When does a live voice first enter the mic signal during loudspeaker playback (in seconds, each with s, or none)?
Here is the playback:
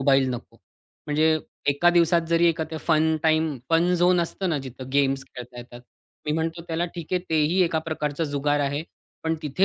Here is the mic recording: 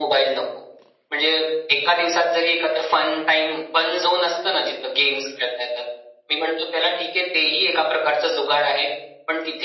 none